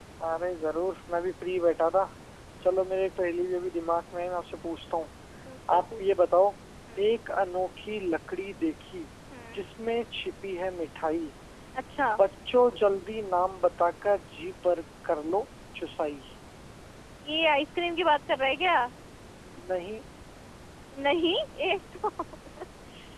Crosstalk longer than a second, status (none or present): none